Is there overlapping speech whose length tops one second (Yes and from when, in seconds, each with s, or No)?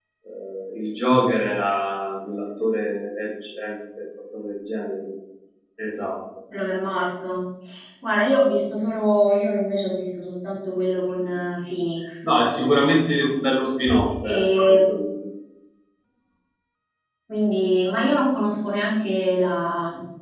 No